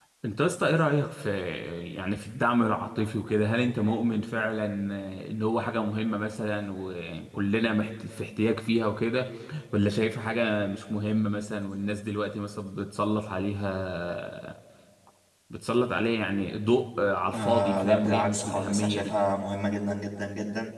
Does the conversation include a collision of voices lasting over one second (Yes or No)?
Yes